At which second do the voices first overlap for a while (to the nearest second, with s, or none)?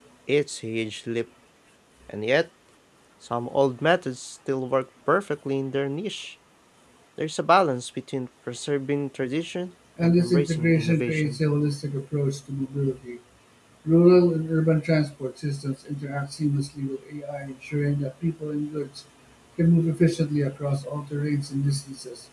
10 s